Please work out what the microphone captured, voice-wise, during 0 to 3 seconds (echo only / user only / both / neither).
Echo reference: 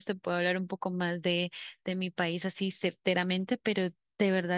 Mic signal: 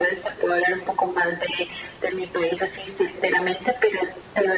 echo only